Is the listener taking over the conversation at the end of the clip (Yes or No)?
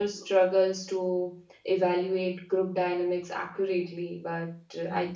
No